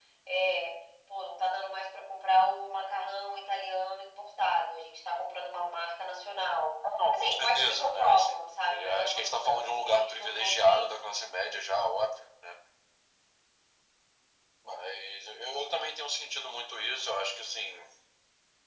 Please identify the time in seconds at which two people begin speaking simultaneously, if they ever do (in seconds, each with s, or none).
7.1 s